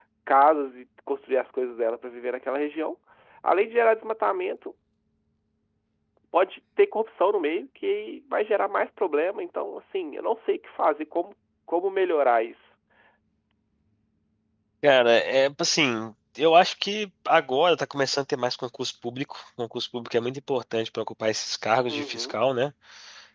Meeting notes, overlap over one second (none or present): none